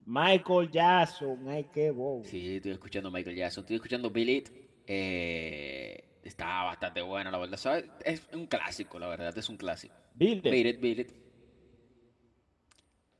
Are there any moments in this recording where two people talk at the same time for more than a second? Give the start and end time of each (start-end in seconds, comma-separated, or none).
none